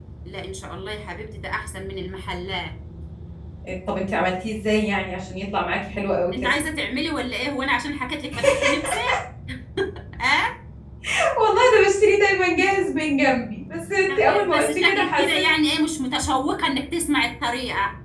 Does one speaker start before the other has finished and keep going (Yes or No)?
Yes